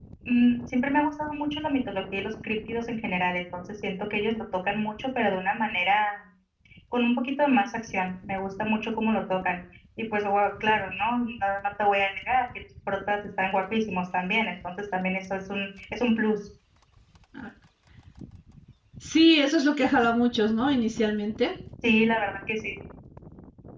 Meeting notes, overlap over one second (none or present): none